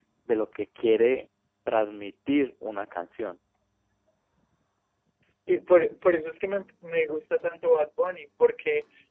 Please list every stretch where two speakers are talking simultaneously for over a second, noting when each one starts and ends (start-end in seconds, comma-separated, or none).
none